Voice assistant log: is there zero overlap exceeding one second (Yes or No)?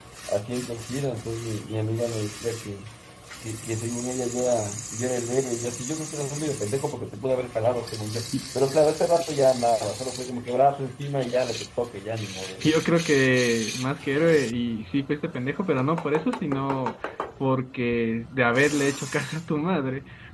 Yes